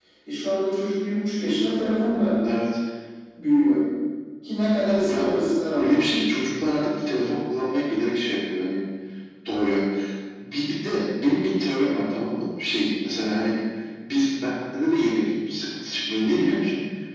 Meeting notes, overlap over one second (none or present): none